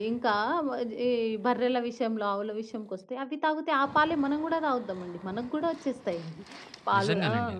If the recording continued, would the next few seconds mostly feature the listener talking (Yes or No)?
No